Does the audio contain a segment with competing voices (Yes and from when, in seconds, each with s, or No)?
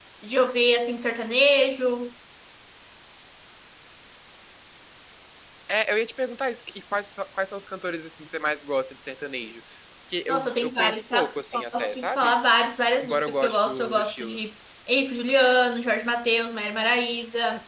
Yes, from 10.3 s